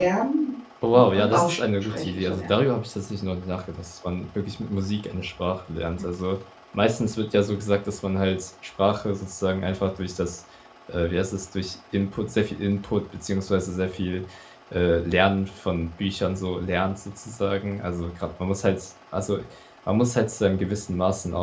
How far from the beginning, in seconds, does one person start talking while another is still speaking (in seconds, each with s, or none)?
0.9 s